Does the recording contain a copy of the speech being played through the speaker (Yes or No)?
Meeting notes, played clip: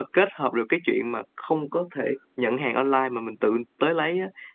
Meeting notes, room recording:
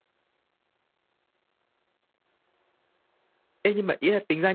No